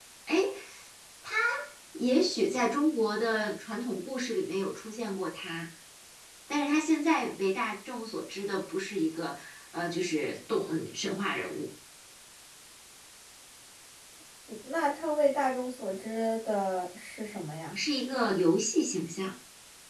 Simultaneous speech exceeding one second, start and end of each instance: none

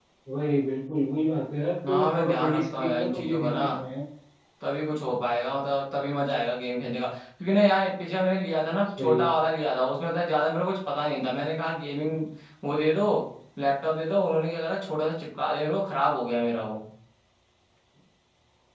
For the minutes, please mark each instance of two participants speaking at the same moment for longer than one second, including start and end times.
1.9-3.6

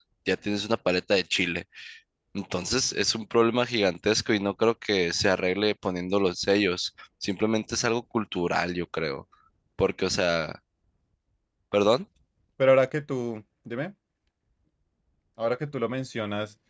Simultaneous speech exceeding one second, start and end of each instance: none

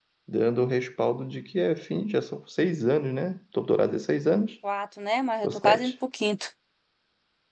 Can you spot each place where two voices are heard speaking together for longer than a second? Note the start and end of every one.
none

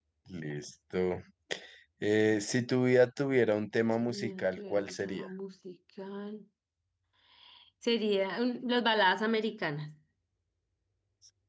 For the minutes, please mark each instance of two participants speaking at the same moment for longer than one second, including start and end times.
4.0-5.3

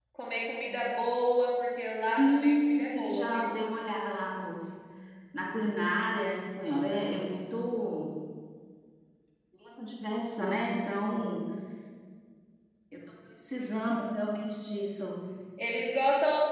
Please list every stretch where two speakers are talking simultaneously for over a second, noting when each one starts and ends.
2.1-3.5

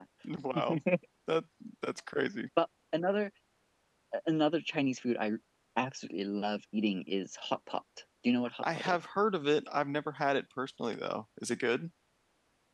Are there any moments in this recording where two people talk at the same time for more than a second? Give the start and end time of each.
none

